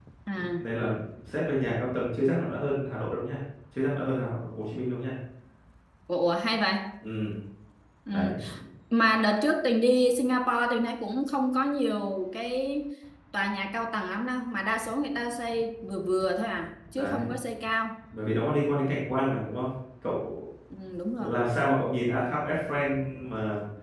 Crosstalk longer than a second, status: none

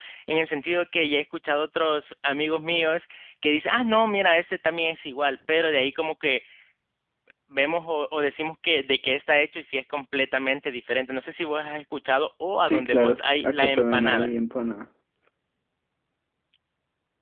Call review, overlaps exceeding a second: present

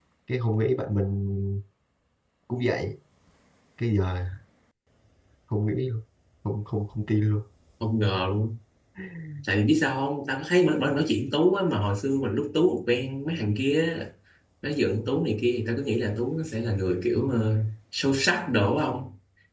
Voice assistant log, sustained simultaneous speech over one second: none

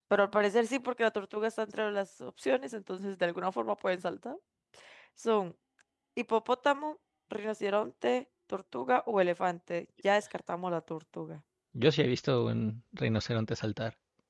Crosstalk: none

